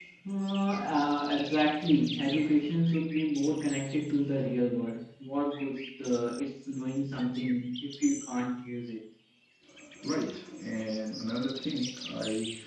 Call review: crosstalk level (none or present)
none